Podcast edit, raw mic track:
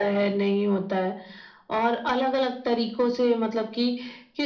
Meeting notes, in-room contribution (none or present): none